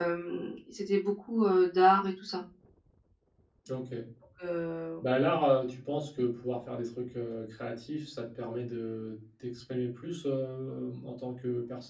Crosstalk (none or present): none